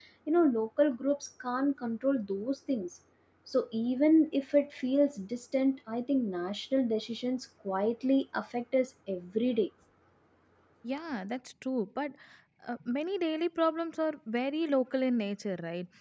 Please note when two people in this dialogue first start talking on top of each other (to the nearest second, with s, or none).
none